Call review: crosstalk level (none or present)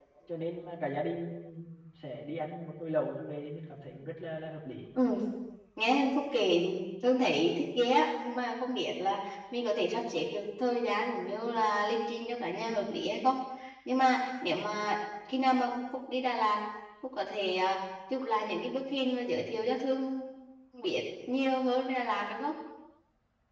none